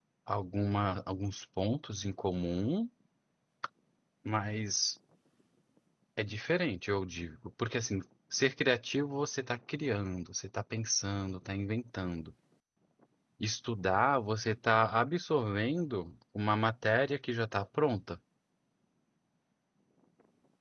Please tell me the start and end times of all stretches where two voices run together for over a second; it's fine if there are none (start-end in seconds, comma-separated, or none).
none